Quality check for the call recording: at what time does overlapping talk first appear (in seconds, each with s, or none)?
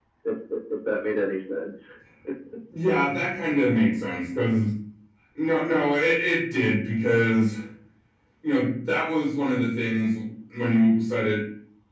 none